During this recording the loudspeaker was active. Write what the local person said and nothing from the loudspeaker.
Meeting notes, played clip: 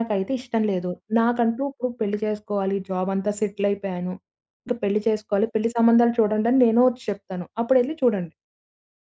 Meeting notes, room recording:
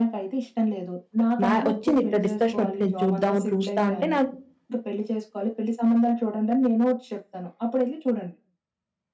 మ్యా వచ్చింది ఇట్టా డిస్కషన్ ఒచ్చింది చూద్దాం చూస్తా అంటే నాకు

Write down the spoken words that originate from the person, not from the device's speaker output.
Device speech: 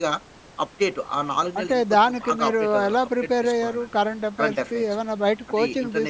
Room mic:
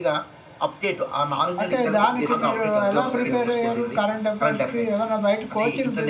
దగ్గరకకొచ్చేసింది. ఎగ్జామ్ సమయం వచ్చేసింది.

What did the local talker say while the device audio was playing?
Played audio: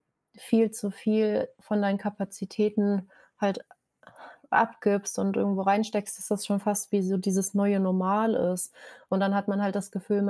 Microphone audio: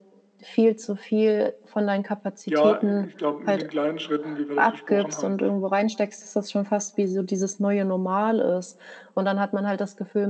Ja, i ich glaube, mit den kleinen Schritten, wie wir das besprochen haben,

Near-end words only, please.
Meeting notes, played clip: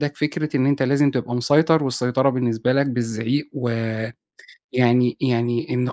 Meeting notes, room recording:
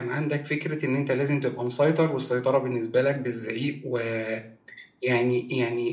none

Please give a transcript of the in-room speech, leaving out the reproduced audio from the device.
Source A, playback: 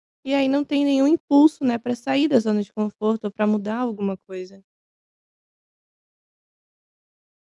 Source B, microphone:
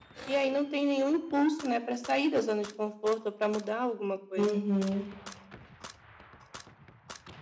Uhum.

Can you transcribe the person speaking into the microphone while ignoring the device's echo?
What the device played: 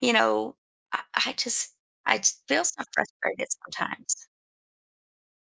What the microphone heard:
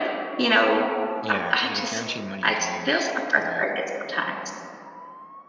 Yeah. You have a guaranteed money to use. Right?

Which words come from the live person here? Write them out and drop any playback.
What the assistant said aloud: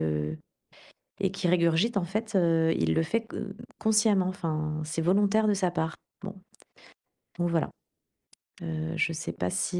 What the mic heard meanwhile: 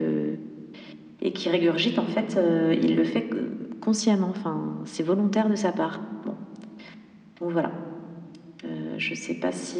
none

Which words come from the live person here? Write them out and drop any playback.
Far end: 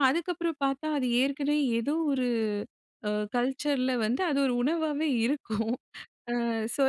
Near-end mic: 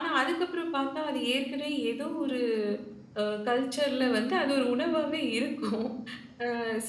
none

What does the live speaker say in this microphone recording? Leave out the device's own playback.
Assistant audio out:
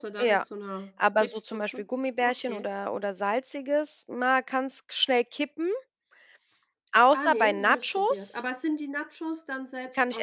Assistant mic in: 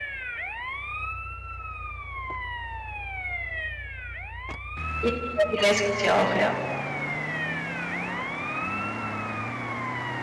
Ja, die Lay's gibt's hier auch, ja.

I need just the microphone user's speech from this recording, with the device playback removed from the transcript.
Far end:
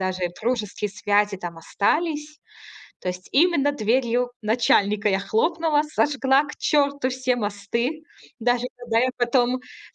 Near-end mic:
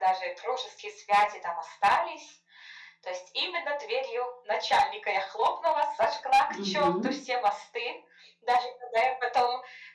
Мгм.

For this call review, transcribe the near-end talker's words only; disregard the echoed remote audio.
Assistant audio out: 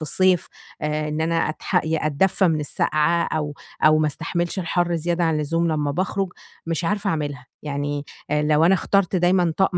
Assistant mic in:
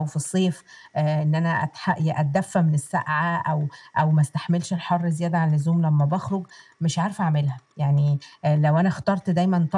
none

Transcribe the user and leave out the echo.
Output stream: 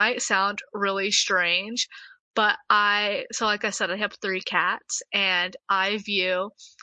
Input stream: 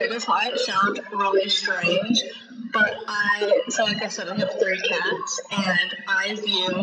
none

